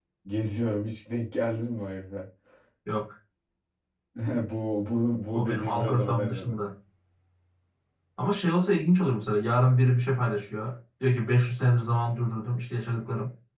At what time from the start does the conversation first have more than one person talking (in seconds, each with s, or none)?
5.3 s